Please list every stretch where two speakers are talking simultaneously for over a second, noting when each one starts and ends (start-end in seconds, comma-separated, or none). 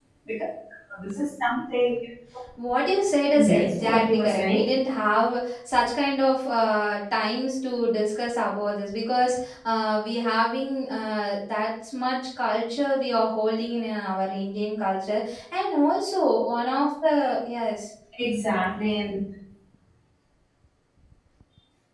3.4-4.6